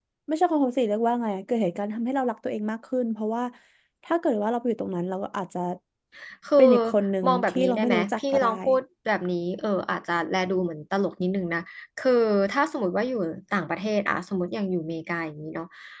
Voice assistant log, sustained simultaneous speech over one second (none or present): present